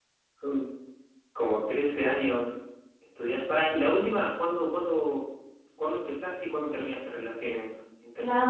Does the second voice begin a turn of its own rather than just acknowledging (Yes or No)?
Yes